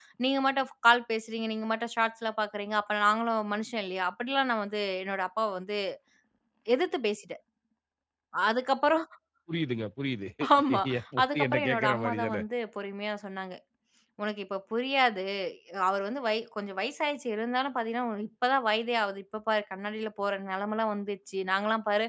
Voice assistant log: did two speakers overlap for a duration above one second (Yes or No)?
Yes